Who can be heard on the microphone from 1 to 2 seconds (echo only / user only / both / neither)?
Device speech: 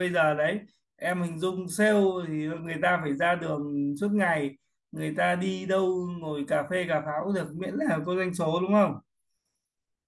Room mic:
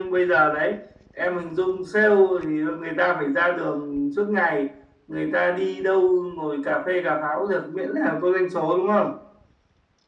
echo only